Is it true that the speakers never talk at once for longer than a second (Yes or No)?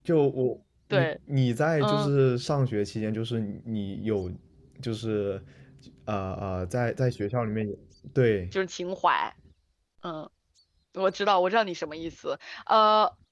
Yes